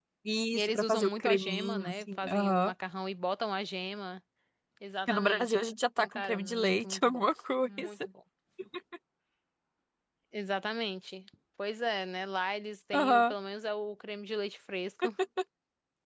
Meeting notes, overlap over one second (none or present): present